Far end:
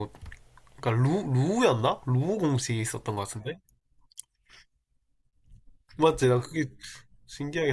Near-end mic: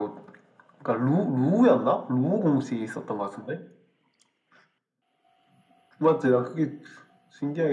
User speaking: No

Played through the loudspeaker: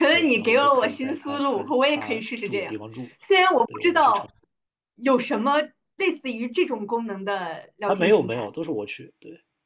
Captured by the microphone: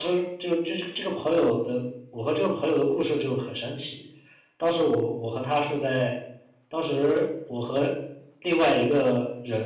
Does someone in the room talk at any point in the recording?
Yes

